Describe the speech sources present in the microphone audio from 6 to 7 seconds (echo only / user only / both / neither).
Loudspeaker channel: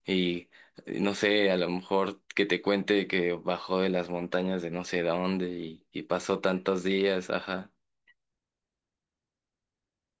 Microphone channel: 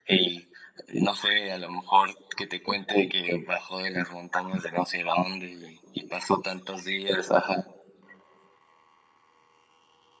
echo only